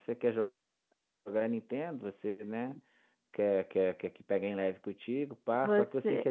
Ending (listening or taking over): listening